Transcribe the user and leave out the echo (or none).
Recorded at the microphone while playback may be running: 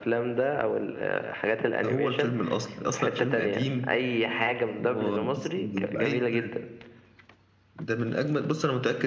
none